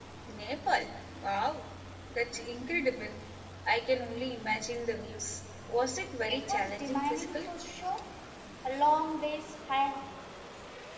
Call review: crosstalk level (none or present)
present